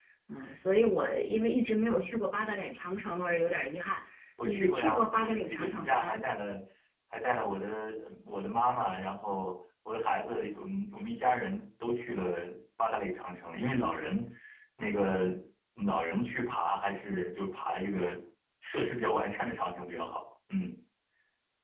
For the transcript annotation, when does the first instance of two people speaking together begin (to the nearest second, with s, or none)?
4 s